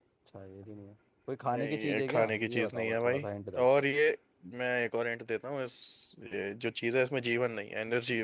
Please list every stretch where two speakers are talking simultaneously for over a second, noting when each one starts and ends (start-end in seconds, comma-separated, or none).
1.5-3.3